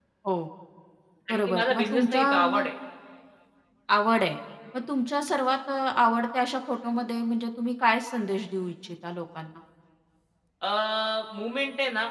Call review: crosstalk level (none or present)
present